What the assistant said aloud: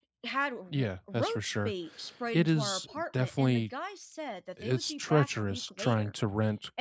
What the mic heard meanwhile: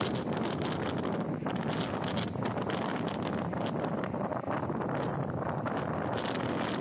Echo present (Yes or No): No